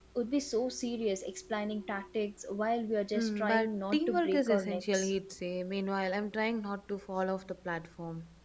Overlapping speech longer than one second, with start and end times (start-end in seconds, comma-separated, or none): 3.1-5.2